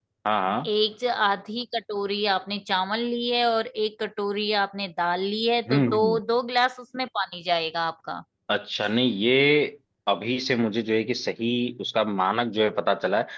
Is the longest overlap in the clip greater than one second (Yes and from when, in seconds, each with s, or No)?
No